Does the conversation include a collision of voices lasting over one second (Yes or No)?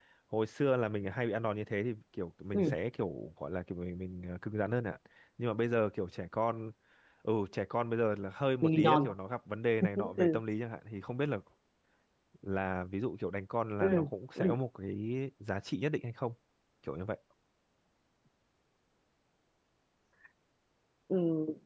No